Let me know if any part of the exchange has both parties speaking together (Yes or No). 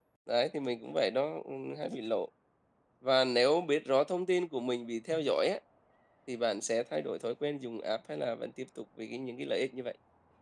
No